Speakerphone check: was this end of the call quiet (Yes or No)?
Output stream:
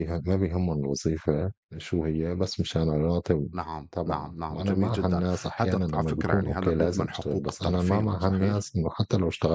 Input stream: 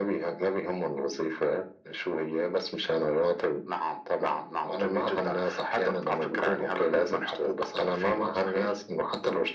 Yes